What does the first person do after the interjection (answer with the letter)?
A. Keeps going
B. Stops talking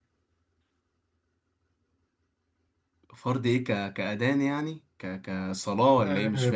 B